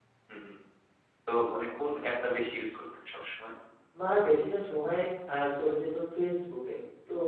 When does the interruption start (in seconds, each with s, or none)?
none